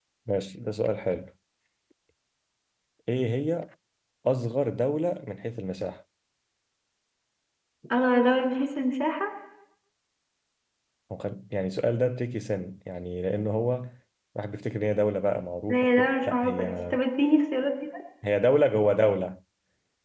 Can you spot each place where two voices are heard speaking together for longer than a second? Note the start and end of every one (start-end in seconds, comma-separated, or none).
15.7-17.0